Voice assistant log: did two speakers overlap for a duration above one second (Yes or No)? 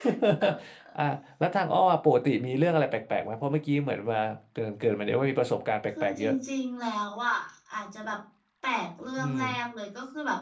No